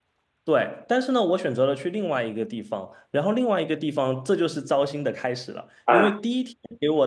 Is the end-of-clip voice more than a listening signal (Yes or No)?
No